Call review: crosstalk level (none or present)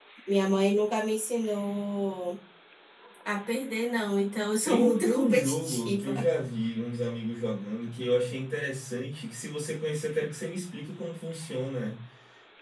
present